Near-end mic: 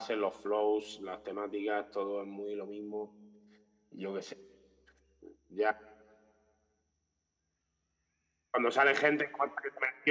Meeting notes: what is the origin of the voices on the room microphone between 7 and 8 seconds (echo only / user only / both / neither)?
neither